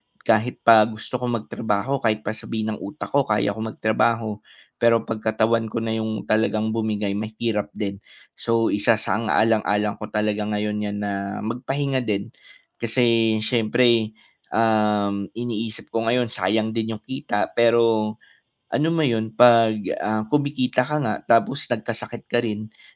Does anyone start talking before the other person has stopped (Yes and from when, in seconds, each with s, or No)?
No